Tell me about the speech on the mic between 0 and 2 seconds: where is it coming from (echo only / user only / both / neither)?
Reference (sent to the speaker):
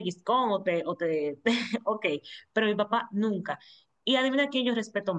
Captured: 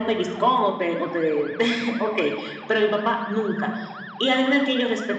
echo only